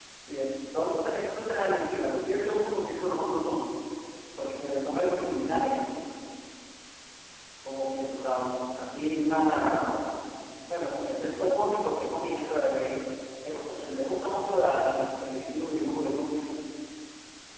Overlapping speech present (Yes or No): No